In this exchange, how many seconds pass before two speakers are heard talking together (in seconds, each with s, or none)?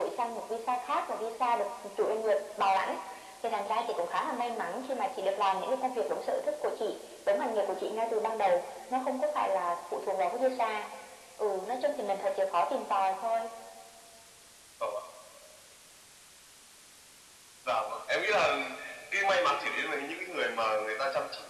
none